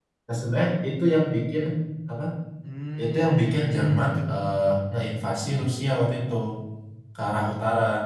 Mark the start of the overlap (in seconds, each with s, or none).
3.0 s